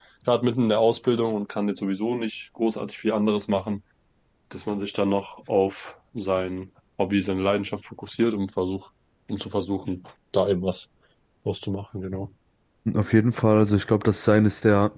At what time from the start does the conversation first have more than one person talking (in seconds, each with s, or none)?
none